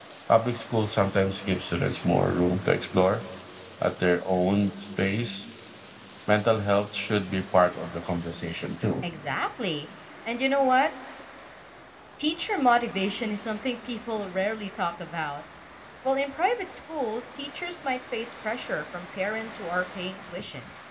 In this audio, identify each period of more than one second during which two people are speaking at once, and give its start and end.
none

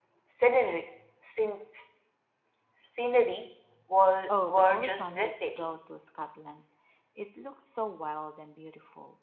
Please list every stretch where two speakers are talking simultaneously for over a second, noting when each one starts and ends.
4.3-5.7

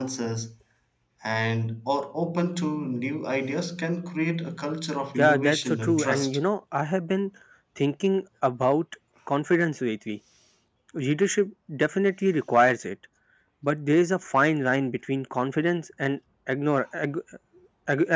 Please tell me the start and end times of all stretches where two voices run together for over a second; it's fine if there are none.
5.2-6.4

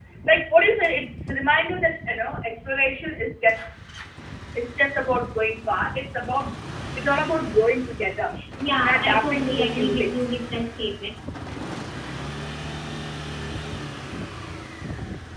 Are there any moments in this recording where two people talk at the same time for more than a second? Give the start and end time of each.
8.8-10.4

